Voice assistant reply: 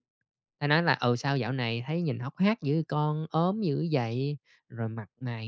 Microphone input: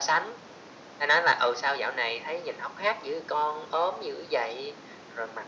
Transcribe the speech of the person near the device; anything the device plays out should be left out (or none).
none